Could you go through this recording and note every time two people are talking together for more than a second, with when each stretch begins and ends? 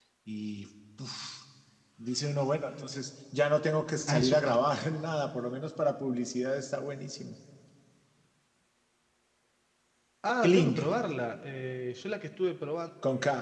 none

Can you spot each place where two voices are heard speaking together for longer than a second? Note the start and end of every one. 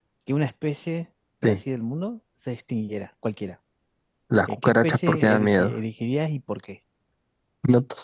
4.5-5.7

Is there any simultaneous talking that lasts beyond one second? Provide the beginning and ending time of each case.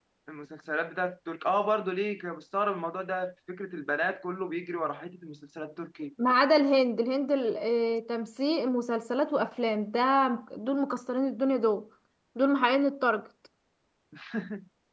none

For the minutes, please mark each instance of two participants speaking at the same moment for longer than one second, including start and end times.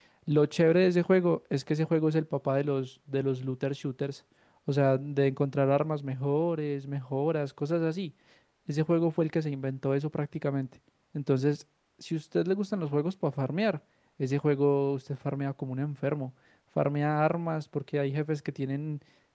none

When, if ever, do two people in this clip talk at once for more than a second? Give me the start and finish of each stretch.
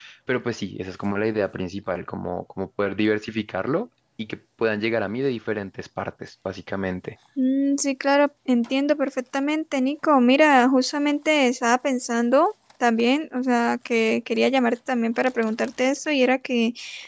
none

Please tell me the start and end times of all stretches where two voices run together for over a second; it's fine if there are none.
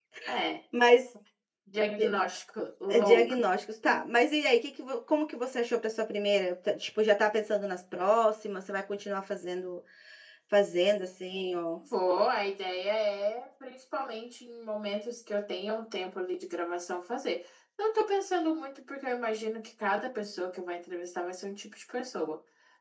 none

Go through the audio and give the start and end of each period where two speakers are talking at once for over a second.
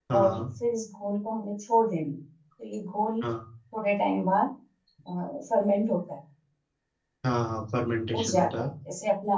none

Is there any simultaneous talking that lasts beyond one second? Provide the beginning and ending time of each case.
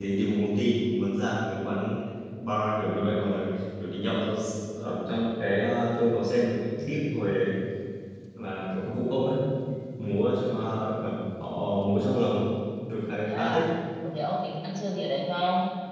none

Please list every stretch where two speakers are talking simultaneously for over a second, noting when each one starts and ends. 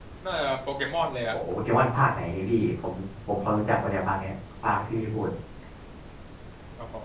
none

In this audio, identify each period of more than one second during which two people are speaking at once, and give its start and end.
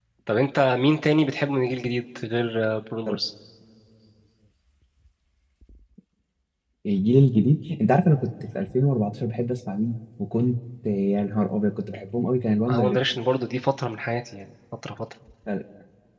none

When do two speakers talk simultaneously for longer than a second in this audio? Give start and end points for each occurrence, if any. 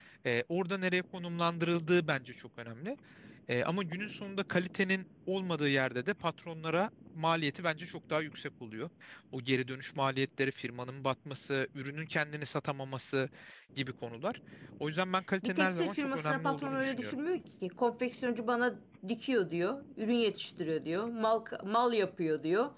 15.4-17.1

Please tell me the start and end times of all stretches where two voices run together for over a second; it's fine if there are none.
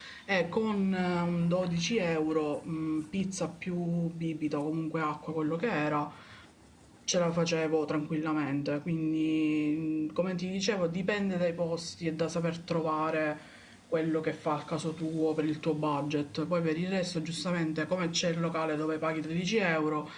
none

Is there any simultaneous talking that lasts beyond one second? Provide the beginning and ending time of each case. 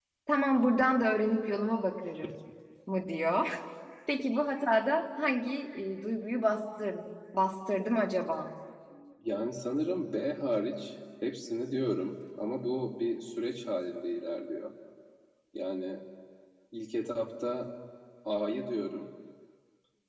none

